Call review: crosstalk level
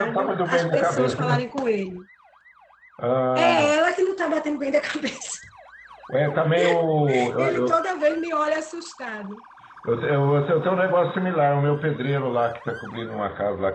present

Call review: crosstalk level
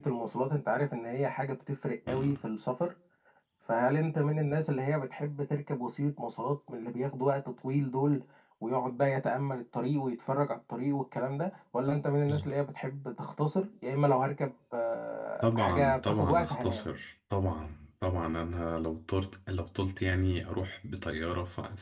present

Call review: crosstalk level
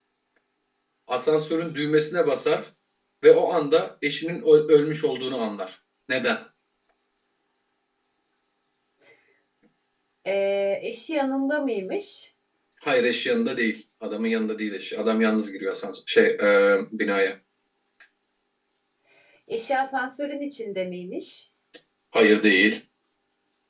none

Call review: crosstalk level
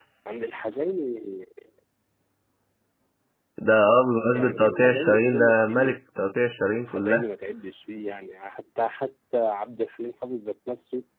present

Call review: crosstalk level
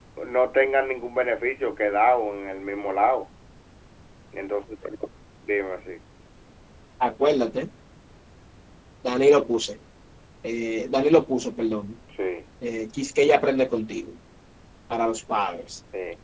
none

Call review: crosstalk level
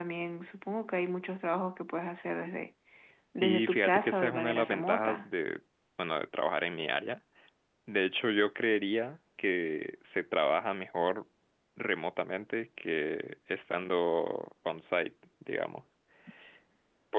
present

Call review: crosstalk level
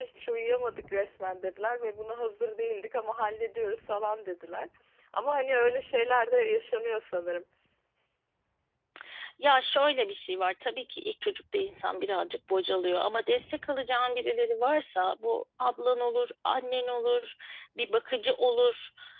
none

